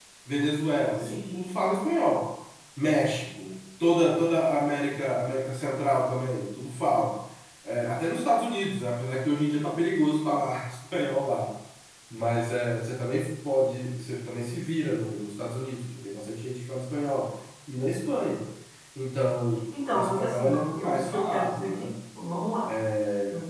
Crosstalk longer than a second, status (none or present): present